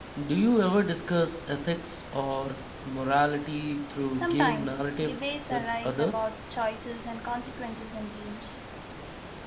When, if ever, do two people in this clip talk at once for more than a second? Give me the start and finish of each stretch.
4.1-6.3

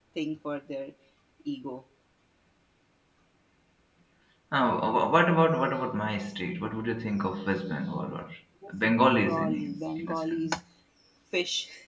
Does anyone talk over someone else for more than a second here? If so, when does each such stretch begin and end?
9.0-10.5

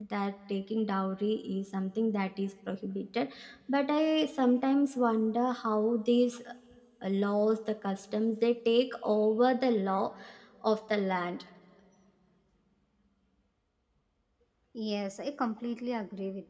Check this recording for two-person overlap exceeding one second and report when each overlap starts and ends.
none

